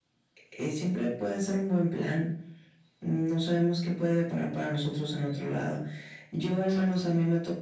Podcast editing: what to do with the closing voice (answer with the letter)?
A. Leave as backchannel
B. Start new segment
A